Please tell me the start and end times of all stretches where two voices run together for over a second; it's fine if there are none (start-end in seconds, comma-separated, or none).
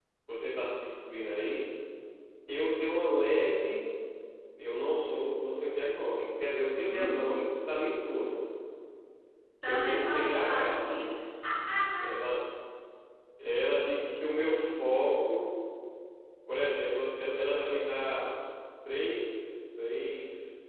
9.6-11.0